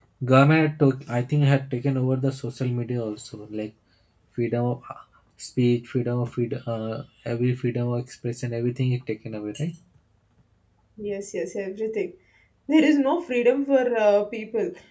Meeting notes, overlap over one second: none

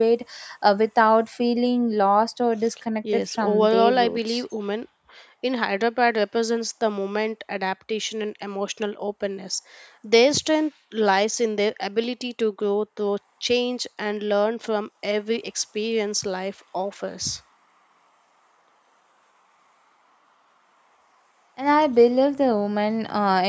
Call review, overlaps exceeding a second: present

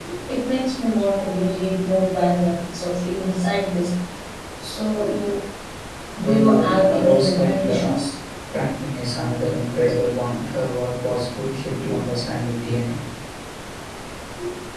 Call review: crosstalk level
present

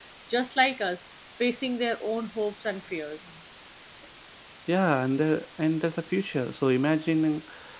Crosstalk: none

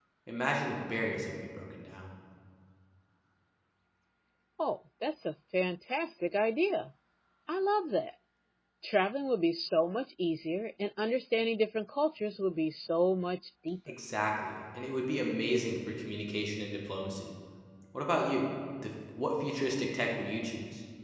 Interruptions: none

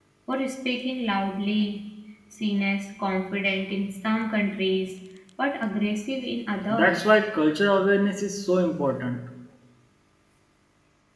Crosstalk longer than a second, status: none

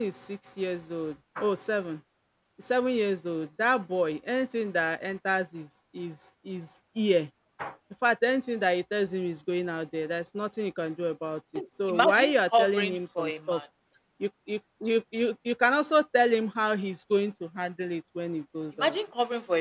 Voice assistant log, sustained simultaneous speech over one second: present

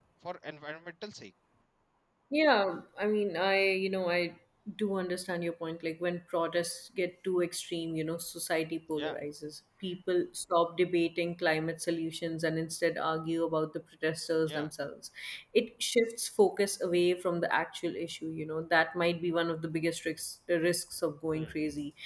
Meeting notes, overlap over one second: none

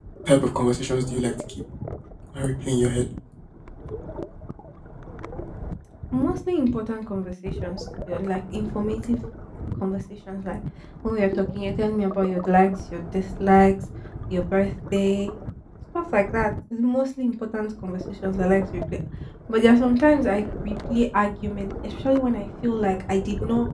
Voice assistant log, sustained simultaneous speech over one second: none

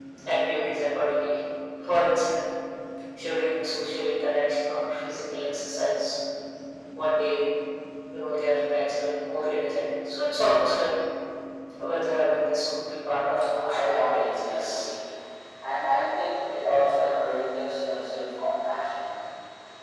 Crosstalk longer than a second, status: present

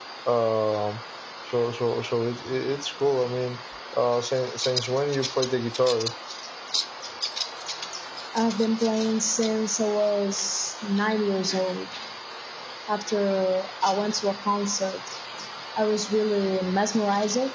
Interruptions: none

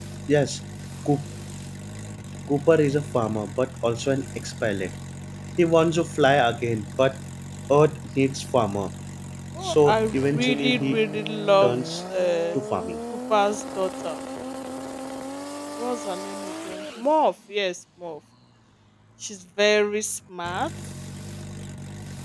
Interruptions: present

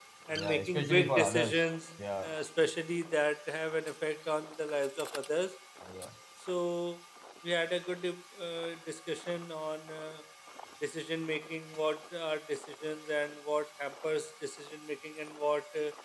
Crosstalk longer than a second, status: present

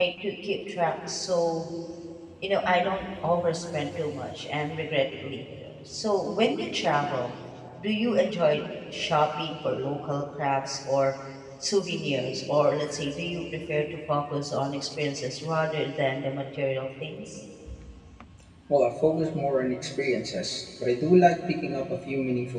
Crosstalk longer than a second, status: none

